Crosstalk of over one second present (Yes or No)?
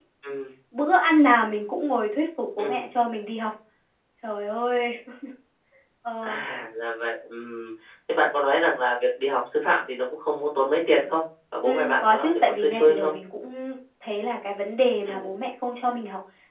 Yes